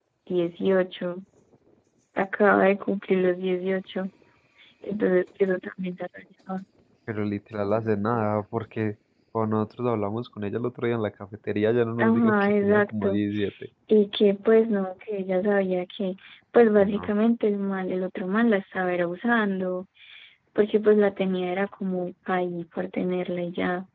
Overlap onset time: 12.0 s

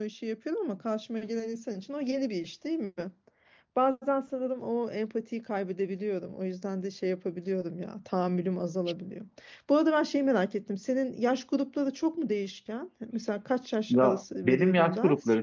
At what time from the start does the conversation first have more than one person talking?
13.9 s

